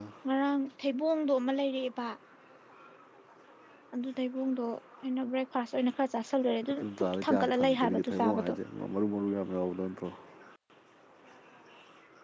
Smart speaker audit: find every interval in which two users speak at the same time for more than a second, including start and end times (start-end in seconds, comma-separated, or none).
6.8-8.5